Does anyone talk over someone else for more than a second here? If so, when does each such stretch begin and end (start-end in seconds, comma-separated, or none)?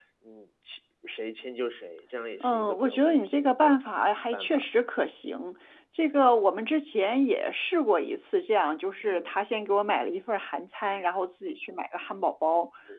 2.4-3.8